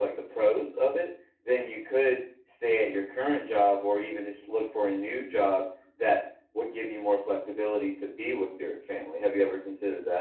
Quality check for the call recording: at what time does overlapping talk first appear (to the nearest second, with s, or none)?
none